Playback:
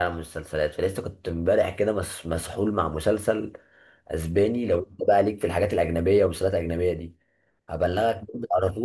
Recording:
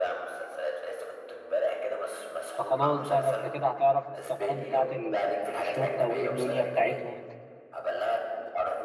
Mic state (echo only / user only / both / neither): both